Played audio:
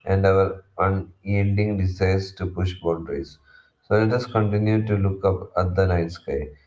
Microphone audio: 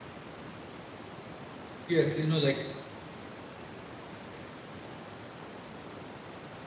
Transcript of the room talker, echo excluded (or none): Yes, you know, like